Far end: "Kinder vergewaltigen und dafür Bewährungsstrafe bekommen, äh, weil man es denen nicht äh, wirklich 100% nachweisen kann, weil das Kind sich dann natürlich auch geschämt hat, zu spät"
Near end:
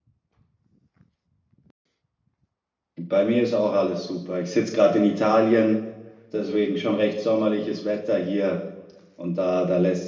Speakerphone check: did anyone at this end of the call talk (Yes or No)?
Yes